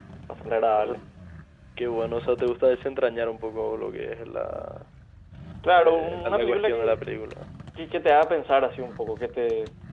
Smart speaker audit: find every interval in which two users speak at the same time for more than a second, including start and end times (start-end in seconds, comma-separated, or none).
5.7-7.0